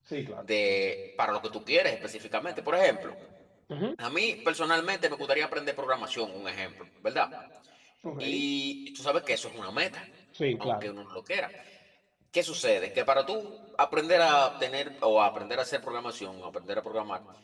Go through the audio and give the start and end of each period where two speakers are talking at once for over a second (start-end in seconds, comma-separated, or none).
none